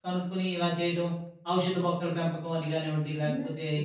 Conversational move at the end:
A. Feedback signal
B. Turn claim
B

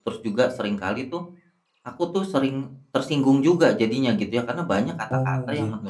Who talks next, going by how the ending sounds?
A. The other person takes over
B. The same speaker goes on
B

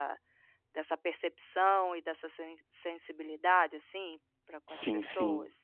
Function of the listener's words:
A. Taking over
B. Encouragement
A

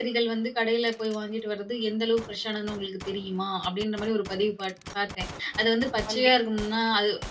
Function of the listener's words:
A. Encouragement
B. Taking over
A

